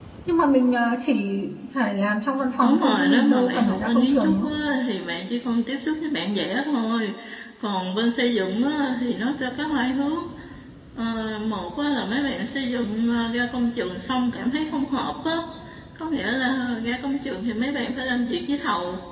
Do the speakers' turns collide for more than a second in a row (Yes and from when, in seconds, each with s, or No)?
Yes, from 2.6 s